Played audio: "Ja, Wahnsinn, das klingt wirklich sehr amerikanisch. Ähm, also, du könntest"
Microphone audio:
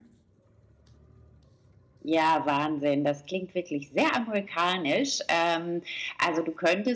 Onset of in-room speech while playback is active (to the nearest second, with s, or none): none